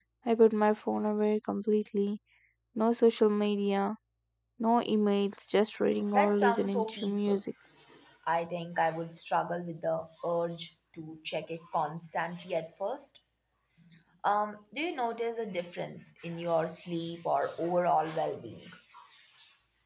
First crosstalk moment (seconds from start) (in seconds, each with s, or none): 6.1 s